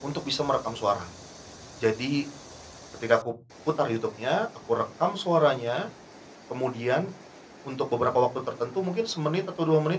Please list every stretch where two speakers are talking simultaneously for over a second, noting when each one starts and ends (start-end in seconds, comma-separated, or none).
none